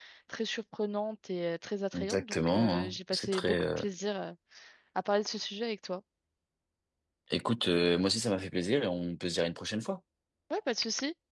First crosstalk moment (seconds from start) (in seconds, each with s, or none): 1.9 s